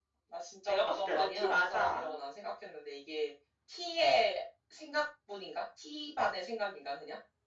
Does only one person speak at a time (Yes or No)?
No